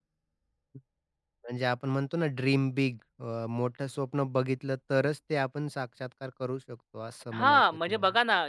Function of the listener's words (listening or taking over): taking over